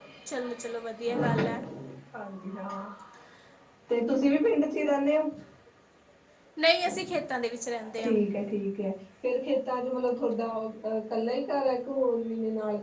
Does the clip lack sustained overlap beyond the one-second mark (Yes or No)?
Yes